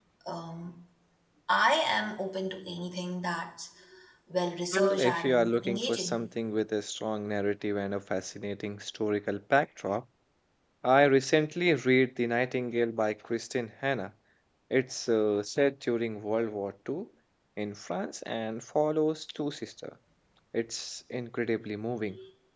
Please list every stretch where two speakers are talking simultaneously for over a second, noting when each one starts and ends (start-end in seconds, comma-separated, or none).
4.7-6.2